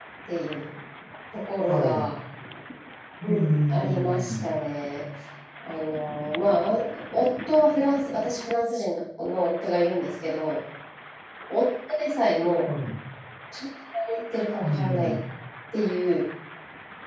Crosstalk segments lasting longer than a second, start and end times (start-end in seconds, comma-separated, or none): 3.2-4.5